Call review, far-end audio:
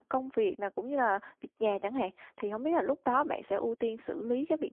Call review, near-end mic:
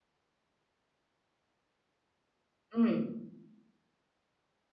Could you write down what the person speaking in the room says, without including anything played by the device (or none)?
Ừm,